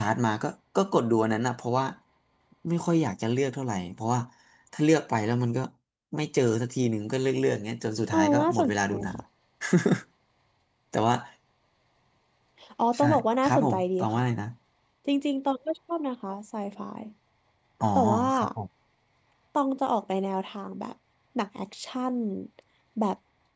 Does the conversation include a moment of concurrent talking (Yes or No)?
Yes